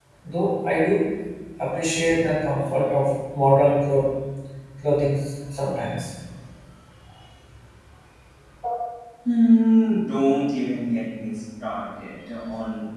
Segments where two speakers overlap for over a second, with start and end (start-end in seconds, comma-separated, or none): none